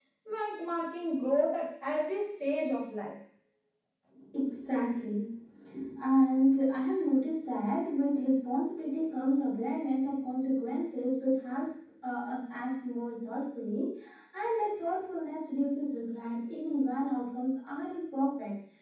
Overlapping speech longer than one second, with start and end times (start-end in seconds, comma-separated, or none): none